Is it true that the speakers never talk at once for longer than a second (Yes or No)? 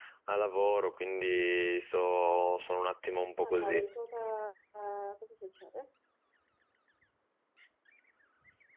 Yes